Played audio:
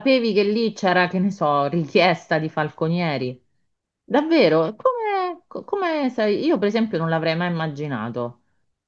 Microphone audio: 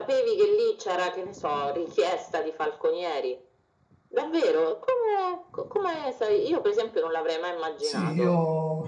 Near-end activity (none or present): present